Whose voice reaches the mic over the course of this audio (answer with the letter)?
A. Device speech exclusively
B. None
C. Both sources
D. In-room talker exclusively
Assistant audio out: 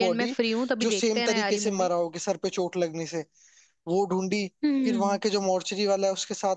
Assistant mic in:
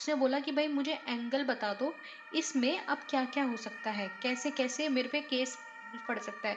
D